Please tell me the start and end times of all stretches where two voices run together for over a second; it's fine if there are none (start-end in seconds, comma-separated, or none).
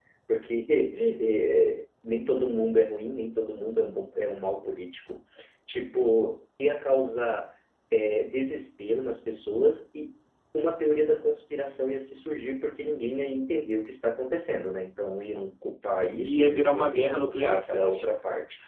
16.3-18.0